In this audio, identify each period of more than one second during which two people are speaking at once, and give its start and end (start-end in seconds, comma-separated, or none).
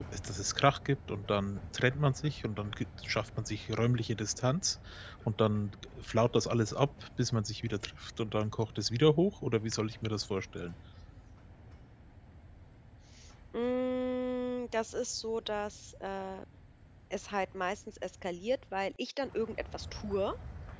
none